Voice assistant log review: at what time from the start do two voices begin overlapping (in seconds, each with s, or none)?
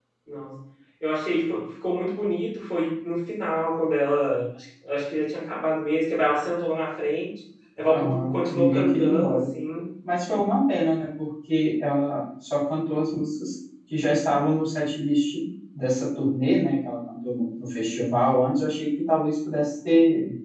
7.8 s